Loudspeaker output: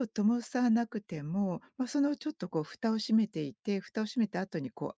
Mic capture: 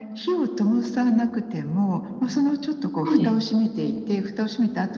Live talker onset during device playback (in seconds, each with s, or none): 3.0 s